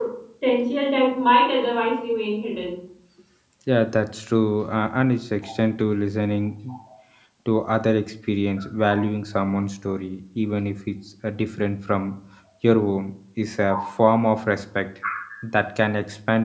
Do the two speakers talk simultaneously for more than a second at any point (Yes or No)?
No